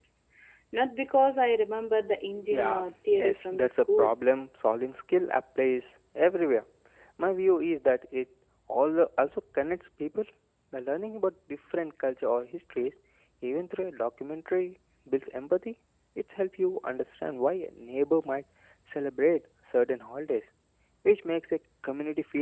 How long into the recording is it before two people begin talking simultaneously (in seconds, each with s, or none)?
2.4 s